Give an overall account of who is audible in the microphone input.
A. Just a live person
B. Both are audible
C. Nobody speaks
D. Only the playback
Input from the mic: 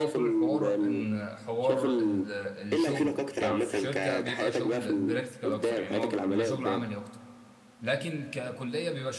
B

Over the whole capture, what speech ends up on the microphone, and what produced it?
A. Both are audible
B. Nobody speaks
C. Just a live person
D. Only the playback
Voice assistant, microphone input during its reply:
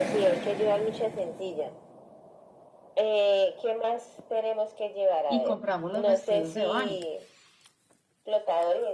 A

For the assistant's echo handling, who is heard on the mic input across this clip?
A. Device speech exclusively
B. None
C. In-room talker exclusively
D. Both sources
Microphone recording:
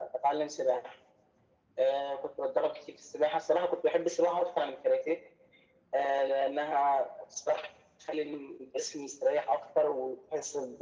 A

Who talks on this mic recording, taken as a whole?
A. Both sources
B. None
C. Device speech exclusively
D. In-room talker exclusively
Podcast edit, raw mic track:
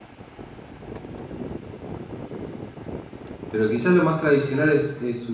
D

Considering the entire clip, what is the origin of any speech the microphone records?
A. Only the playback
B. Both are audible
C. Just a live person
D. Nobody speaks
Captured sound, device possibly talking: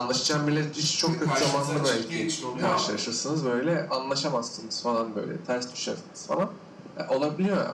B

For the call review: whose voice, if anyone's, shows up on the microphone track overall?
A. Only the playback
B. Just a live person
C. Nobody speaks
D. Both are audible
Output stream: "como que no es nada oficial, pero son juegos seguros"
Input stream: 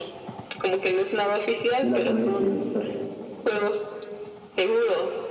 D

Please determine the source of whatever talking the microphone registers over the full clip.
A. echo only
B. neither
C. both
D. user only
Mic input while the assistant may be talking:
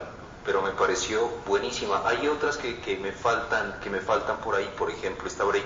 A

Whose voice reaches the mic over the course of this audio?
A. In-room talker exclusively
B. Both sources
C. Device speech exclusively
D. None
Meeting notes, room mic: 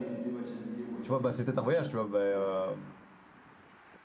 B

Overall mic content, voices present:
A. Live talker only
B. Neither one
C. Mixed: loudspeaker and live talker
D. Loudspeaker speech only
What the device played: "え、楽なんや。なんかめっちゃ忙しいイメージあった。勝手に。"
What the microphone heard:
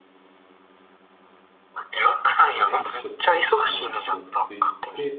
C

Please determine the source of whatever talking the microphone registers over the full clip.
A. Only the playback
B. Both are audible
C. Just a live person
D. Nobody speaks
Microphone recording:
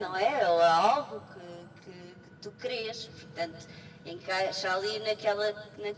A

